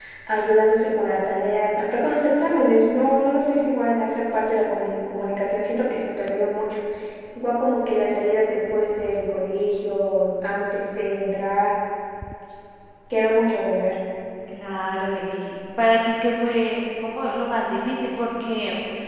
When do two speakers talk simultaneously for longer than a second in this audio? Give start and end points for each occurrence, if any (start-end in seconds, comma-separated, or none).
none